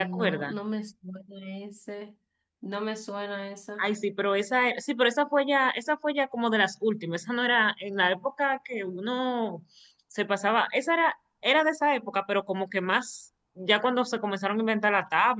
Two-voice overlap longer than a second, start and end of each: none

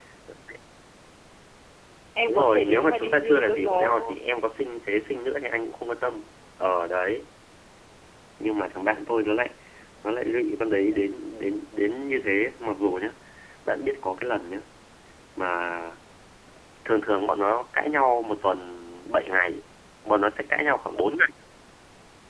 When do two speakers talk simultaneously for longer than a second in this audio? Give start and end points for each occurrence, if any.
2.3-4.2

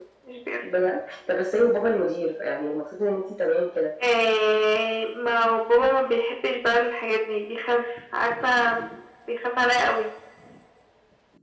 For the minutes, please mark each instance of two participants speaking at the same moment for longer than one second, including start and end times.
none

